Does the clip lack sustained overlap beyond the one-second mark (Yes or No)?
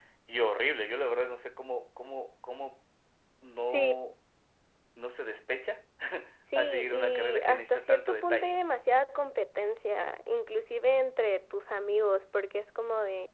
No